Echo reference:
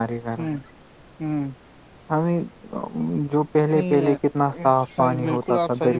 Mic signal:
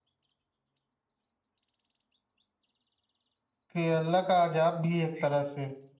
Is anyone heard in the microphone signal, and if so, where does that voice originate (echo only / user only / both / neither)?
user only